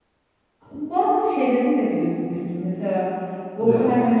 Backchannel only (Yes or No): Yes